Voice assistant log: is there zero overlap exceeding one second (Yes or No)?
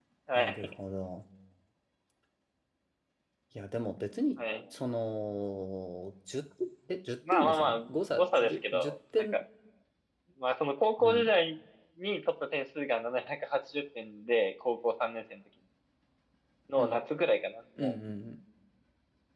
No